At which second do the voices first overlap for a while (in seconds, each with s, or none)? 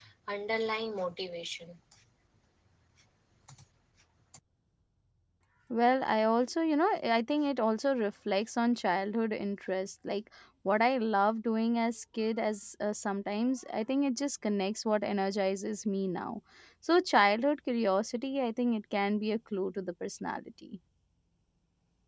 none